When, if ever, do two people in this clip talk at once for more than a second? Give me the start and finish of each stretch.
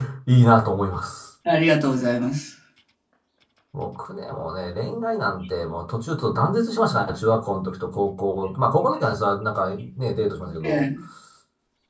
none

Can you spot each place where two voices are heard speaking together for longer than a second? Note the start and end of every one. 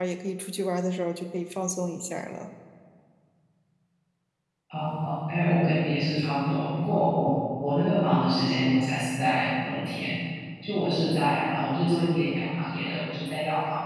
none

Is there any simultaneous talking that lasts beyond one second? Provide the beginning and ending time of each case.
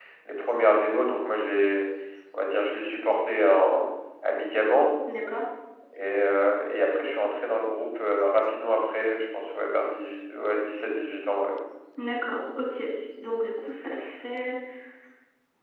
none

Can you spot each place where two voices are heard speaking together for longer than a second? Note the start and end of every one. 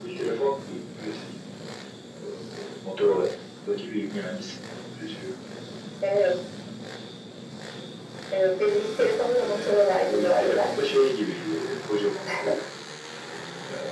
9.4-10.7

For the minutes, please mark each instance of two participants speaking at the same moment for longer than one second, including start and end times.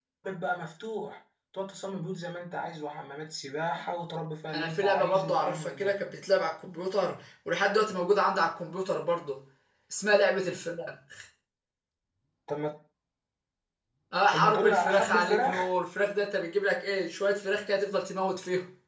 4.5-5.9, 14.3-15.7

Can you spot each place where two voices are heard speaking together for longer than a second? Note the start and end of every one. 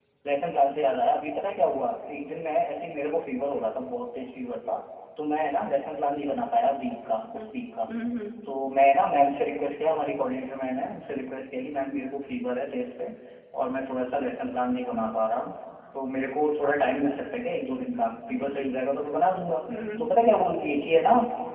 none

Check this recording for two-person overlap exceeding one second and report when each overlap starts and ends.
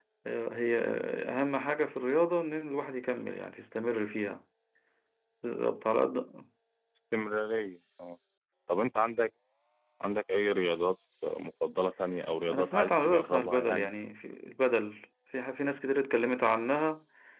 12.5-13.9

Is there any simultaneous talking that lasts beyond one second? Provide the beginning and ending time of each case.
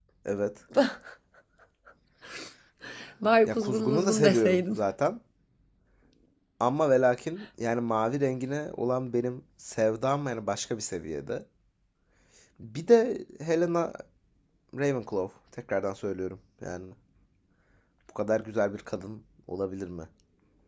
3.5-4.8

